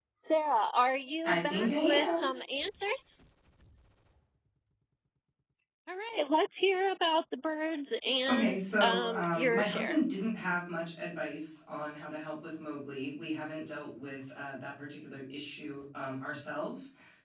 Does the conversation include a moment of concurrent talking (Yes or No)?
Yes